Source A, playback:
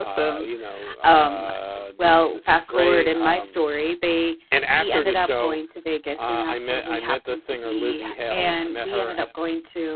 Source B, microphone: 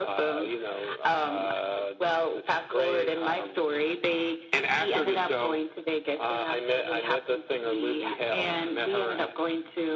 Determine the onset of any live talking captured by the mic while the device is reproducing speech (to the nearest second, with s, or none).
none